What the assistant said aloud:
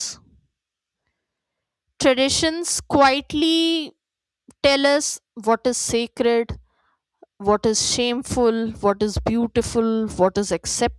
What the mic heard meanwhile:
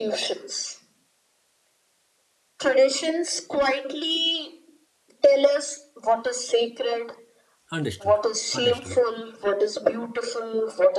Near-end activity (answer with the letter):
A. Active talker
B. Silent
A